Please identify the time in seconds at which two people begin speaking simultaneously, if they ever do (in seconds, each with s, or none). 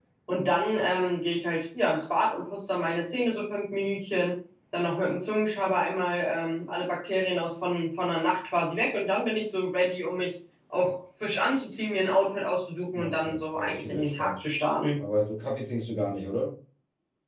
12.9 s